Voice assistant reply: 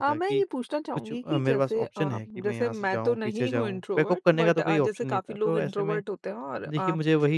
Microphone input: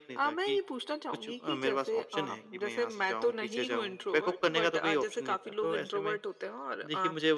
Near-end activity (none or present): none